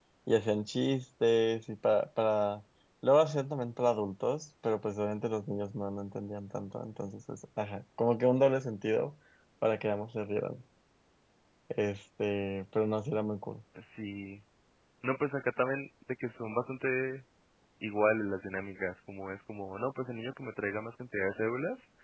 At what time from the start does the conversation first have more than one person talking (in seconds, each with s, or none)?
none